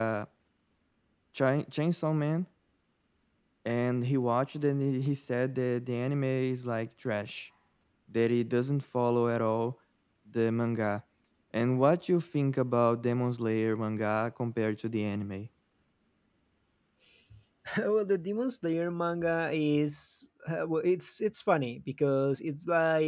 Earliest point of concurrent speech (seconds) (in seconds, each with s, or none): none